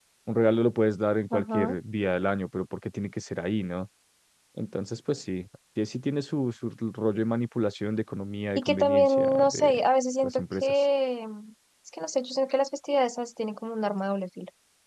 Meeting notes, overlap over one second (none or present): present